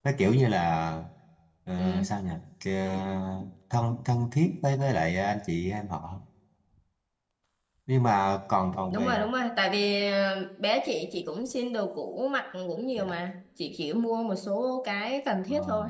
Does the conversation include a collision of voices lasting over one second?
No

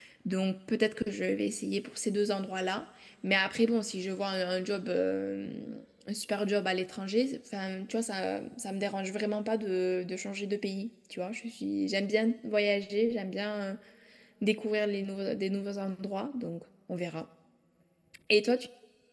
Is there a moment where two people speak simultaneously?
No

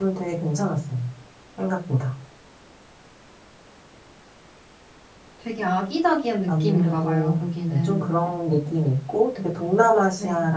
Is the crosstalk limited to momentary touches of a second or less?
No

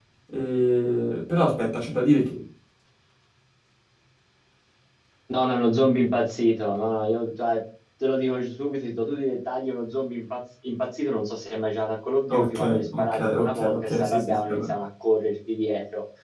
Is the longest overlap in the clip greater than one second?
Yes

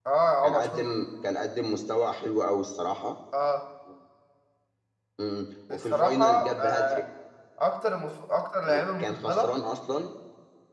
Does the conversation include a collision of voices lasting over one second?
Yes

